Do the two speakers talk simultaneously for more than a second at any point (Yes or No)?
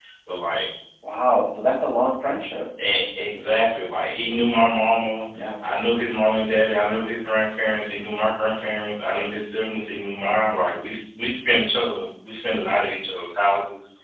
No